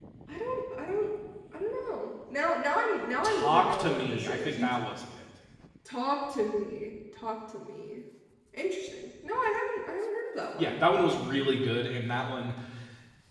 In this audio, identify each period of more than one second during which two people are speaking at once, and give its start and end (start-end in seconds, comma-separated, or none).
3.2-4.7